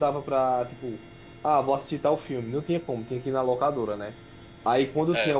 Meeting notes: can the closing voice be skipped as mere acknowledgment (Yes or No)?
Yes